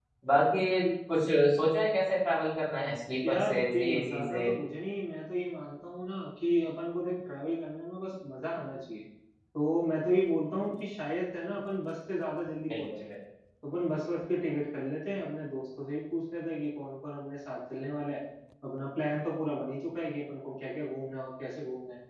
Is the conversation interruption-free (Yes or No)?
No